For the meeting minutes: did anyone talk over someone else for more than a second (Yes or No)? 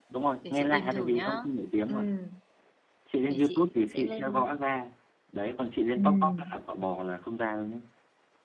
Yes